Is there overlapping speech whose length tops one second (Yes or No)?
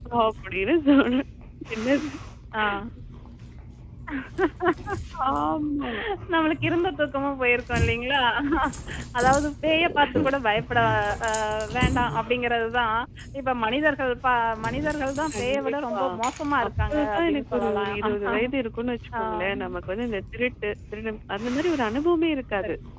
Yes